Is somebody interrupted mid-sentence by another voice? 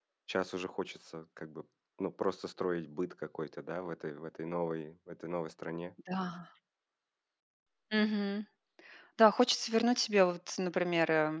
No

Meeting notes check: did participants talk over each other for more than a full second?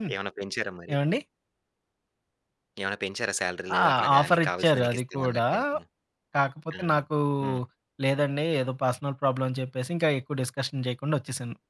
Yes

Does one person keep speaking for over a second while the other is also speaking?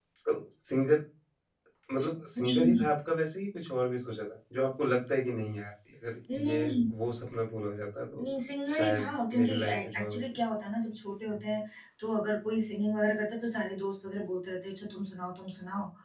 Yes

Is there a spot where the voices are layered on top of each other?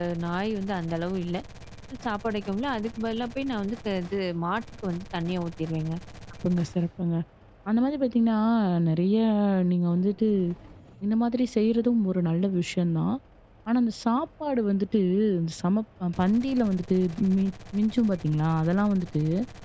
No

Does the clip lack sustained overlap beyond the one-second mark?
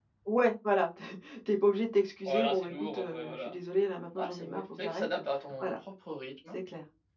No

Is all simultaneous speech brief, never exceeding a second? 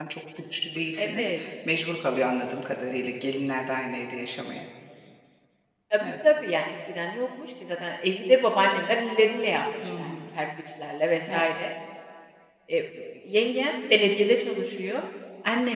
Yes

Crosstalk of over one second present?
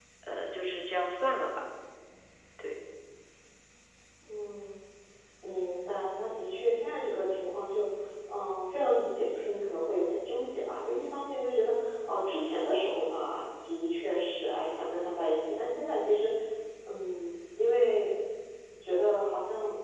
No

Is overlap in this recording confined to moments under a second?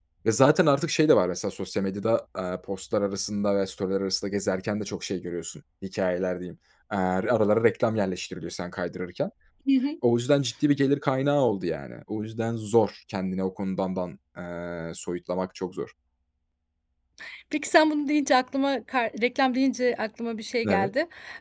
Yes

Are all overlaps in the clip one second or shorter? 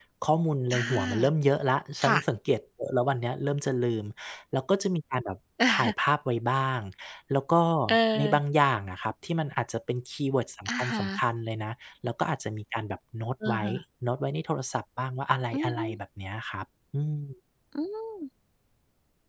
Yes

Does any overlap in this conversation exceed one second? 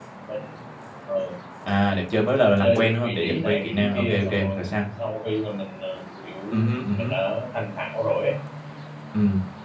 Yes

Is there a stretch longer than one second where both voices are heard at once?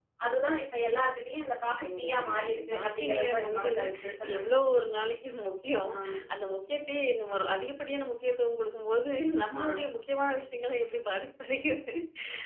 Yes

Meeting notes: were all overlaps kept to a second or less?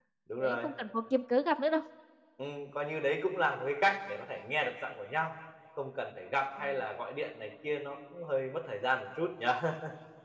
Yes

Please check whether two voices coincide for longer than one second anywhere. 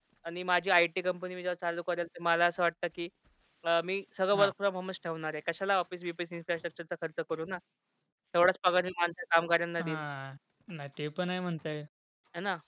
No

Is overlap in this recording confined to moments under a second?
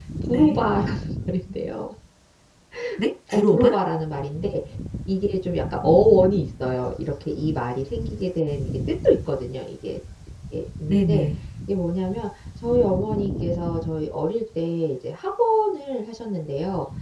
Yes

